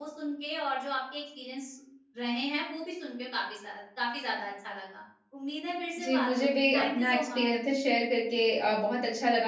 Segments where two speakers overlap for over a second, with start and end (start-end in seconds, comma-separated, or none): 6.0-7.5